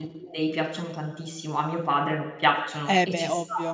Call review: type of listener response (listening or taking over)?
taking over